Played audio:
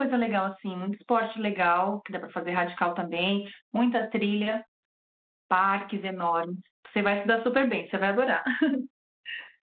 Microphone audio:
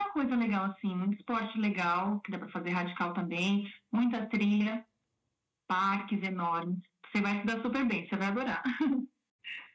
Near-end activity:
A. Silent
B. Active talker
A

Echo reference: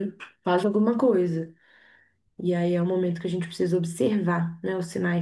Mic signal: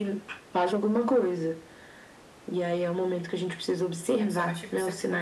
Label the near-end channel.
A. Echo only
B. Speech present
B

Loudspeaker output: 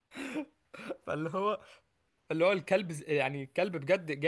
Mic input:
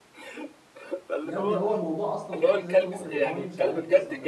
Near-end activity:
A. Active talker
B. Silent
A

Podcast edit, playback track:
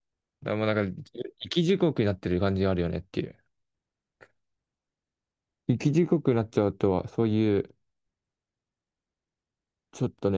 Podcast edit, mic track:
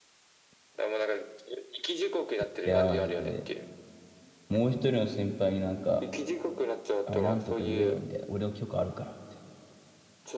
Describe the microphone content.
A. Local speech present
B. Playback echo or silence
A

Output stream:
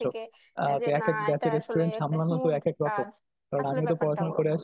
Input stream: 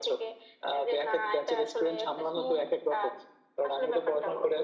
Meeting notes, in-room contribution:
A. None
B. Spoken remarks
A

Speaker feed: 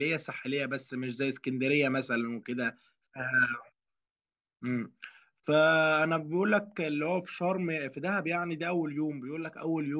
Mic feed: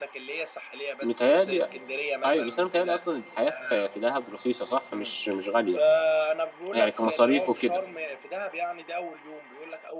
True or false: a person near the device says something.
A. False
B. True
B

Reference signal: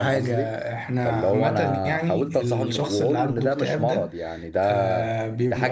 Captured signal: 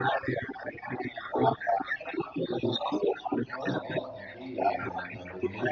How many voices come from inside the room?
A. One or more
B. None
A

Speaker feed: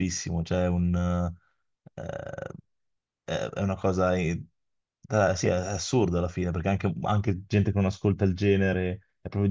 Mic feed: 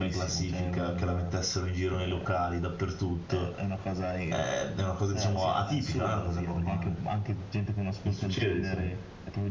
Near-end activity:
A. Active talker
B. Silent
A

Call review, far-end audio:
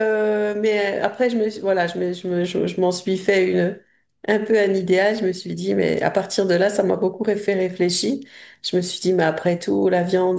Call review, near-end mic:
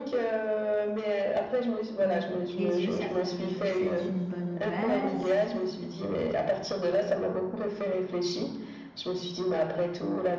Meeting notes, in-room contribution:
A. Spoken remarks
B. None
A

